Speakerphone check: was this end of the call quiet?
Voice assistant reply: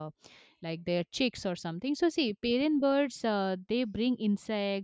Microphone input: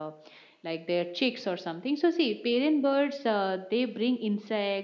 Yes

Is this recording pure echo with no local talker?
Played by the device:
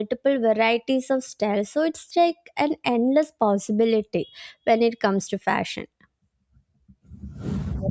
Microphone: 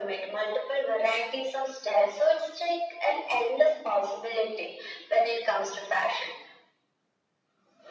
Yes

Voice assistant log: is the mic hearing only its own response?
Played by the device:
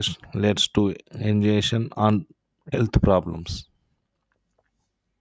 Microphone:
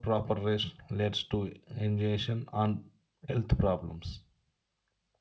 Yes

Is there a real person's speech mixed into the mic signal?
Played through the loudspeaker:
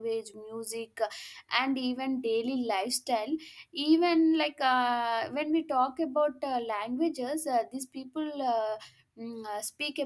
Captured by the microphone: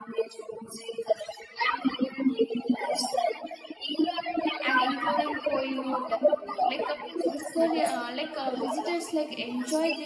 Yes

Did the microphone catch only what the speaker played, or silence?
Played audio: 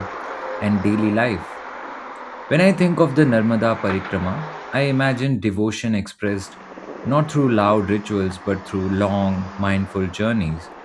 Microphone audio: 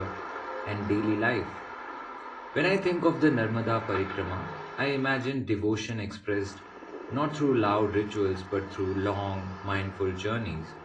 Yes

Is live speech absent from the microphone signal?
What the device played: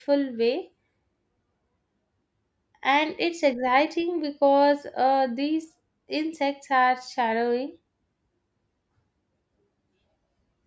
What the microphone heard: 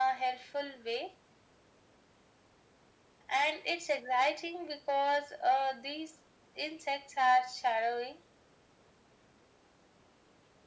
Yes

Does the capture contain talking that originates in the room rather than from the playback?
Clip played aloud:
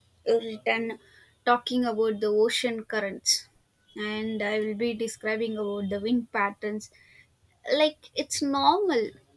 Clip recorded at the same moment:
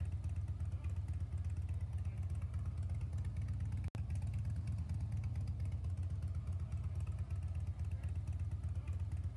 No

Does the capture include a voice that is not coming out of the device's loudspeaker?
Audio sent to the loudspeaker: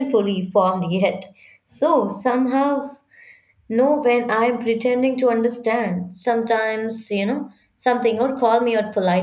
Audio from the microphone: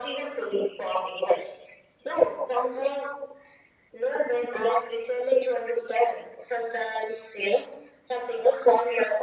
No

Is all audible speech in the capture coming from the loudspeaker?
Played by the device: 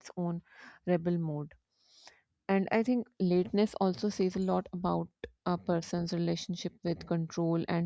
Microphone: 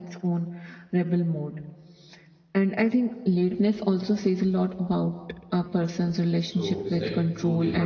No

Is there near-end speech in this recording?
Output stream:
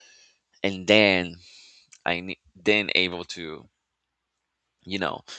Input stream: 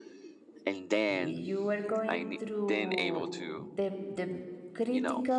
Yes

